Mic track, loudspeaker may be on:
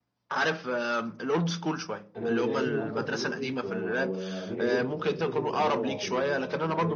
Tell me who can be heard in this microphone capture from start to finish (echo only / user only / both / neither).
both